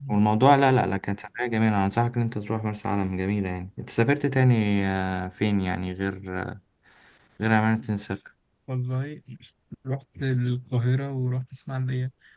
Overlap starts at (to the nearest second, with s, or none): none